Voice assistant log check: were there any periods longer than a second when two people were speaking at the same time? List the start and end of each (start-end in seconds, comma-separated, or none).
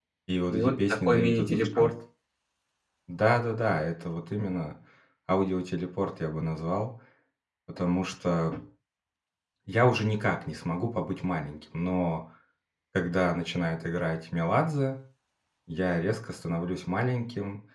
0.5-1.9